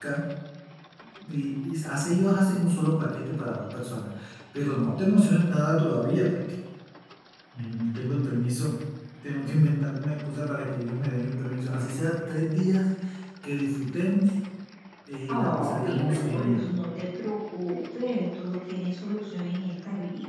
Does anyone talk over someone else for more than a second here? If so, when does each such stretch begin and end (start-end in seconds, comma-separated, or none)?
15.3-16.7